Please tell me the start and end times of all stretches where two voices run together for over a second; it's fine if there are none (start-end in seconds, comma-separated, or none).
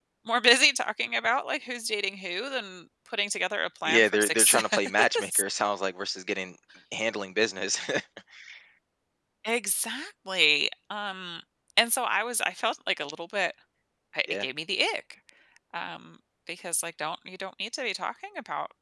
3.8-5.4